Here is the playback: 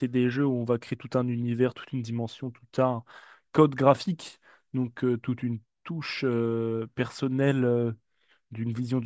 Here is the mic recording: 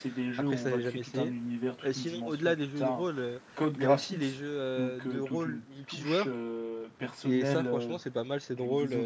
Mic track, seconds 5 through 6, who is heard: both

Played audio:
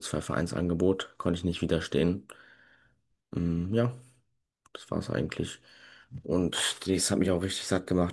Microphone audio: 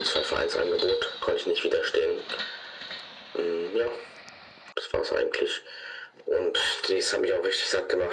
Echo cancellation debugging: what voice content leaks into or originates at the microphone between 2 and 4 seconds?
echo only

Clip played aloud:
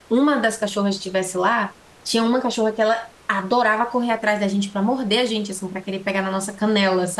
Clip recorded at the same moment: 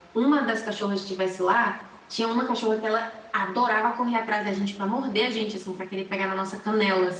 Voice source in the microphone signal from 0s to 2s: echo only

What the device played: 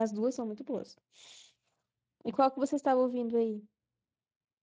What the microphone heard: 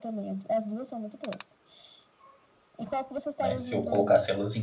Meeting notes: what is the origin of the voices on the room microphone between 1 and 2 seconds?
echo only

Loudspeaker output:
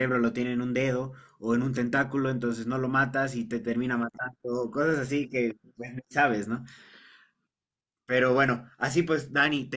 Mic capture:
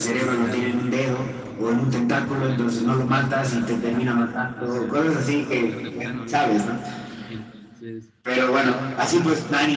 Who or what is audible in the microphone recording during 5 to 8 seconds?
both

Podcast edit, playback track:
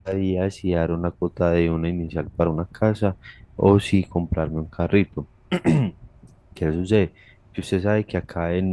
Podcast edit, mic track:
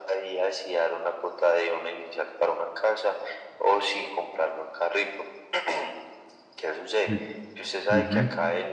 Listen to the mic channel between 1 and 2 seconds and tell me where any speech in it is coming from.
echo only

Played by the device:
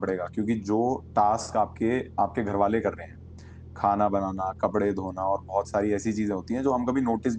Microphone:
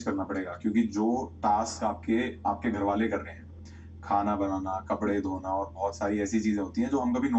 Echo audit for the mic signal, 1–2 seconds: echo only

